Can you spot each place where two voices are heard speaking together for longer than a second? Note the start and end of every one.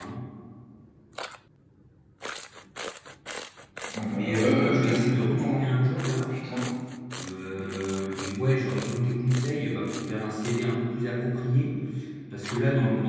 4.1-5.7

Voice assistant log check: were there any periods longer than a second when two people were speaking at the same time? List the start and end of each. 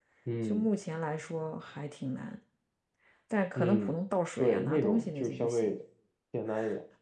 4.4-5.7

